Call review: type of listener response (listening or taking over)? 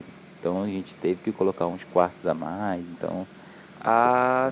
taking over